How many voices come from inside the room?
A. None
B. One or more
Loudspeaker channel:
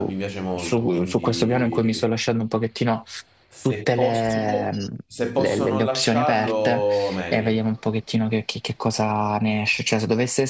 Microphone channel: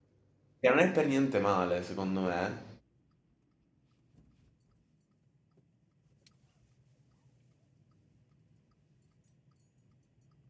B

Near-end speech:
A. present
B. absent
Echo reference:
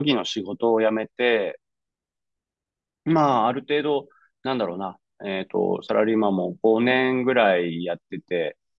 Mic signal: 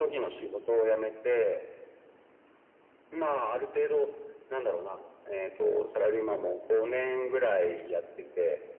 B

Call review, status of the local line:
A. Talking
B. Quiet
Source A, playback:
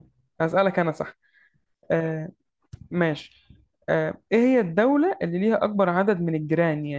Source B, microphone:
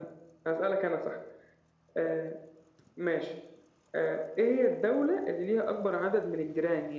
B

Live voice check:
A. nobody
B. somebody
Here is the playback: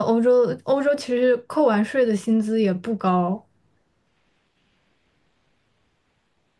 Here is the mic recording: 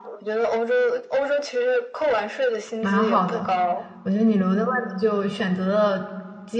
B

